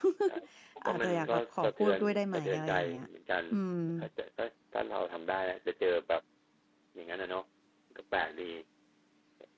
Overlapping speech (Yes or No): Yes